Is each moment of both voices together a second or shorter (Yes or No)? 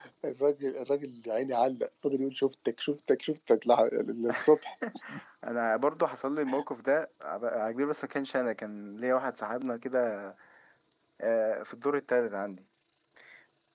Yes